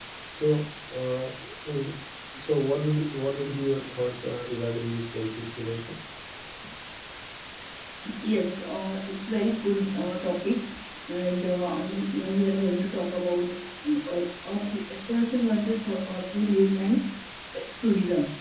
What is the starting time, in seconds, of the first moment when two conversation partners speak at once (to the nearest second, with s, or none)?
none